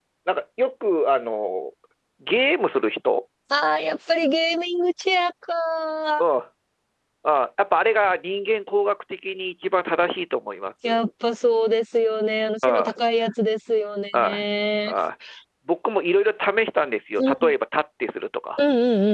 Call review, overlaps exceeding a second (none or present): none